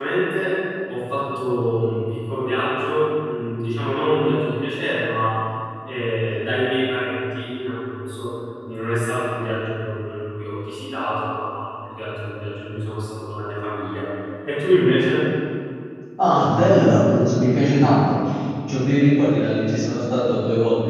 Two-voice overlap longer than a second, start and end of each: none

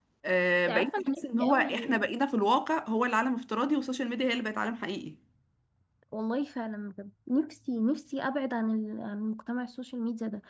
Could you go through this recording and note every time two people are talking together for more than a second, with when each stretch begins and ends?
0.7-1.9

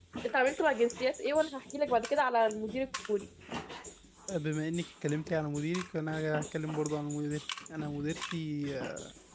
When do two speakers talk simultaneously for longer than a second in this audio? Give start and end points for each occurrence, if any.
none

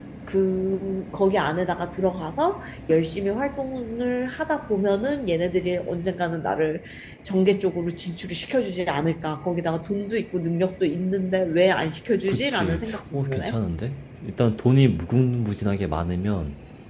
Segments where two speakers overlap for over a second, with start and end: 12.3-13.6

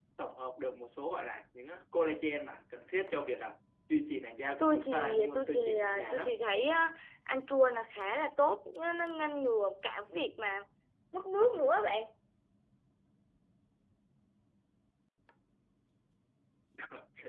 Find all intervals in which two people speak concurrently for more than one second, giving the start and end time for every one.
4.6-6.3

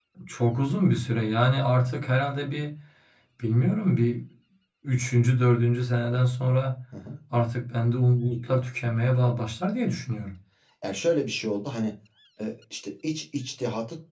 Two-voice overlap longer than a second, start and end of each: none

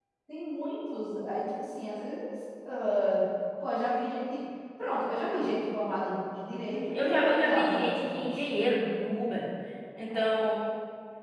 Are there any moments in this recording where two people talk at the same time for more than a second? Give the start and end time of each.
6.7-8.4

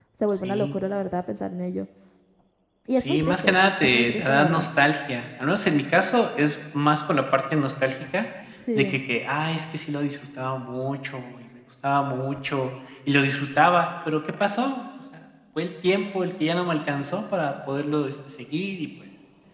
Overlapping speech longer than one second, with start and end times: 3.0-4.7

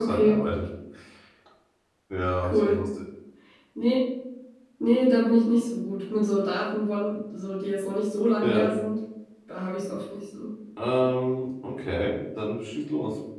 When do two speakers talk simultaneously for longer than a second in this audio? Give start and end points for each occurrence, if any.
none

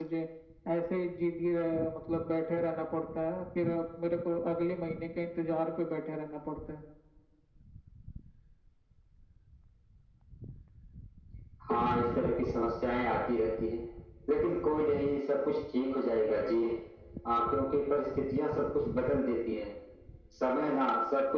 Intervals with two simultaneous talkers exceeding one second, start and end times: none

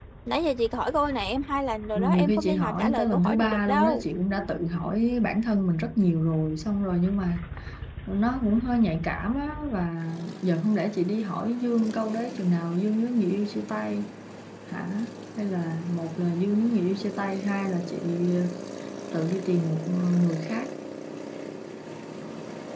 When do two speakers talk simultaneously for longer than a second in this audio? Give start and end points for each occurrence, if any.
1.9-4.0

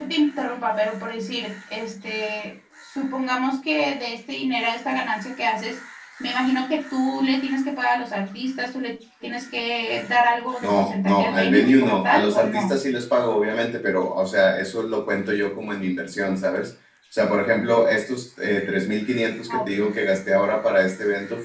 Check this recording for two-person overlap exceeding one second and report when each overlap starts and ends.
10.6-12.8

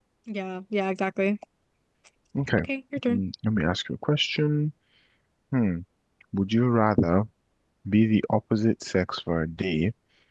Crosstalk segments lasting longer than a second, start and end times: none

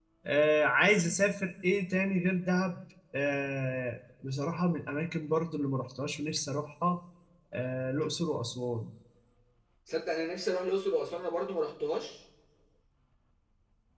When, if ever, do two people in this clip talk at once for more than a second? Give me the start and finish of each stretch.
none

